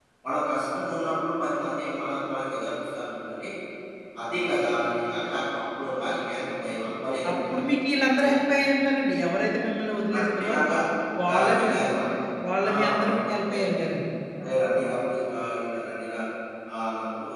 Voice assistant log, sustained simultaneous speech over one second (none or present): present